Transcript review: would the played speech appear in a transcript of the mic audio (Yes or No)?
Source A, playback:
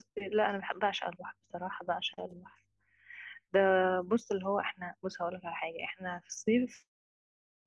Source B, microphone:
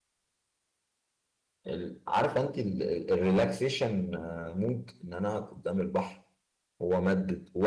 No